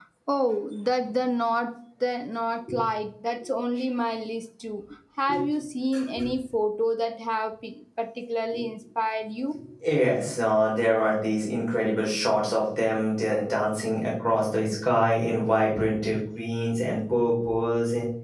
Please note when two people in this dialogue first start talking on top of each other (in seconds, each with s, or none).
none